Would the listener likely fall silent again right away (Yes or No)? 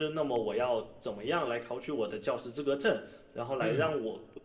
Yes